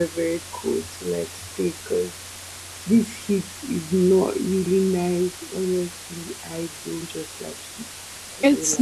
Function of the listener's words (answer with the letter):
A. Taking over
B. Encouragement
A